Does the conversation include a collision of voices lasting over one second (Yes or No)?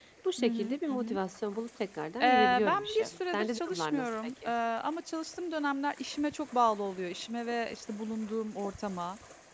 Yes